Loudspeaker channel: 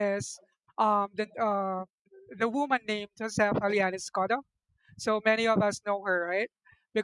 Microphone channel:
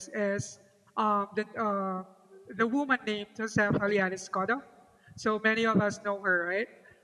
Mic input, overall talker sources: echo only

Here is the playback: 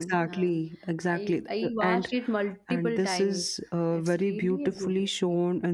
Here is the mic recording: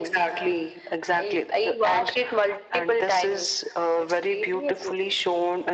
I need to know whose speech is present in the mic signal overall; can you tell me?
echo only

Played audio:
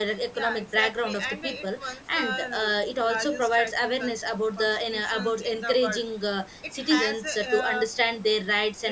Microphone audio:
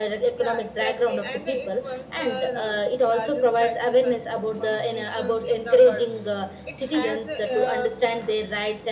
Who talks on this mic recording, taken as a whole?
echo only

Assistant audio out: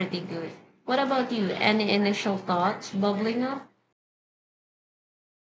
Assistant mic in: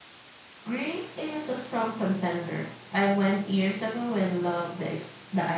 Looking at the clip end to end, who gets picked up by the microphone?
user only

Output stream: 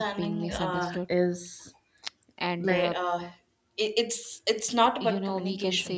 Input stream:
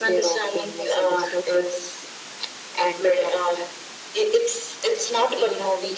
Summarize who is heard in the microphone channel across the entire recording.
echo only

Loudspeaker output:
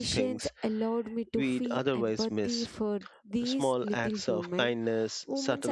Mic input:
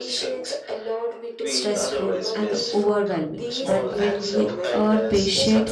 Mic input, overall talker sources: both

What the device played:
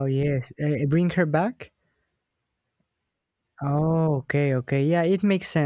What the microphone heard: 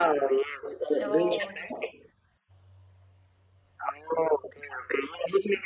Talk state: both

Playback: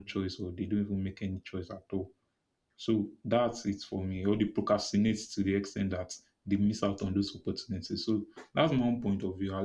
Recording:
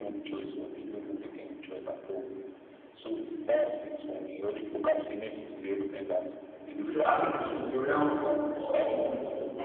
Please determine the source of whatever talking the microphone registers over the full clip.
both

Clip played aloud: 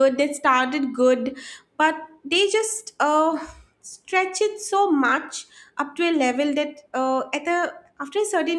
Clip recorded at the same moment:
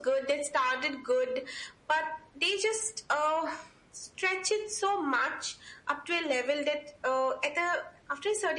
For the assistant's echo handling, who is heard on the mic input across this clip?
echo only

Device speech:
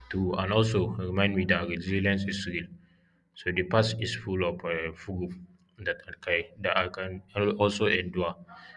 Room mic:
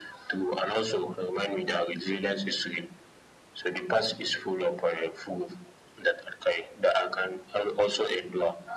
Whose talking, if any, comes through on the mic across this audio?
echo only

